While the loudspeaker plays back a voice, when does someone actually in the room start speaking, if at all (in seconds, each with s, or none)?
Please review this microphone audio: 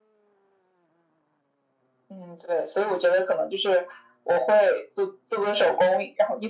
none